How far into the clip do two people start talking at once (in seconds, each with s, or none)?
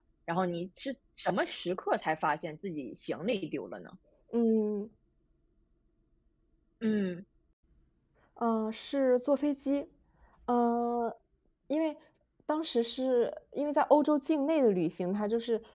none